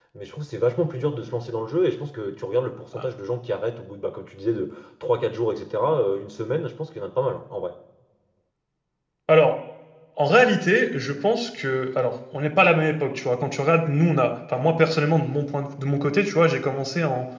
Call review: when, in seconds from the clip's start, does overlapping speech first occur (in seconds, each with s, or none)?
none